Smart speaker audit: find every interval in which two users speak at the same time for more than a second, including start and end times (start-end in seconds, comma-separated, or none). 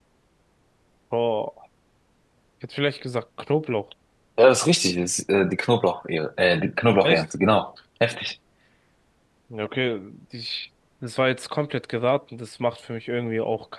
none